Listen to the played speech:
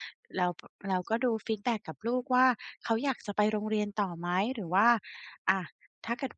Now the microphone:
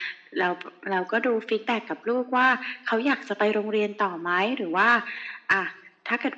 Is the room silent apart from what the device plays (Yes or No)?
Yes